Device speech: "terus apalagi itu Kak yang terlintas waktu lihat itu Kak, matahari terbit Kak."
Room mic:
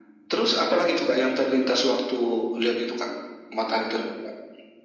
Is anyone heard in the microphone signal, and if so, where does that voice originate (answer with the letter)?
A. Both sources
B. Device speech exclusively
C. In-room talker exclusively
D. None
B